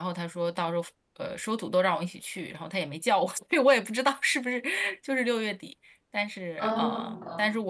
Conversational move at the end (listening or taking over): listening